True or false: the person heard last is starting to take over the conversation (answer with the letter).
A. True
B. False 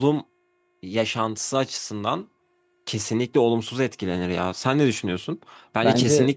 B